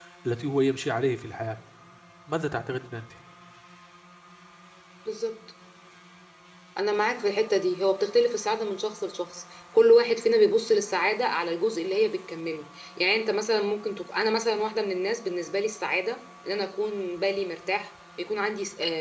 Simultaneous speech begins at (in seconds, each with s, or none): none